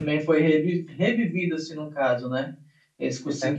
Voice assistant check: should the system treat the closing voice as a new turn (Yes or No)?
No